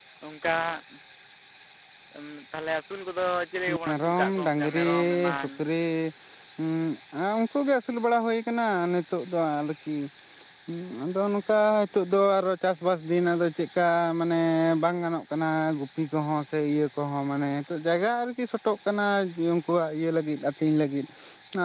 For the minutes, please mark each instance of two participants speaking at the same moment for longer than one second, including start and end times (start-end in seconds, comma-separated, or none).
3.9-5.4